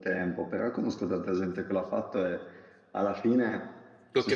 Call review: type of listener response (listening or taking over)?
listening